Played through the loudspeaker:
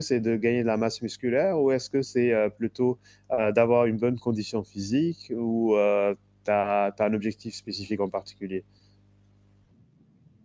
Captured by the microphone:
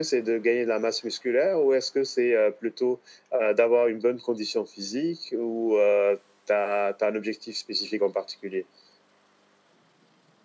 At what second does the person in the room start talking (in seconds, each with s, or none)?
none